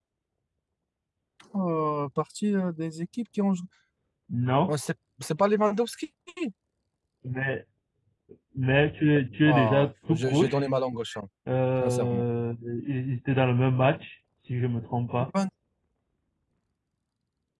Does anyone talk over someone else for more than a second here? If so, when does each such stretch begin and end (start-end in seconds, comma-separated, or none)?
9.4-10.7